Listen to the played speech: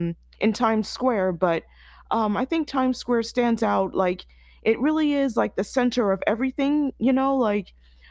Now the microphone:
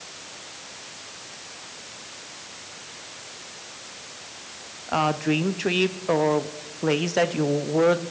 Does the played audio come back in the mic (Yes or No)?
No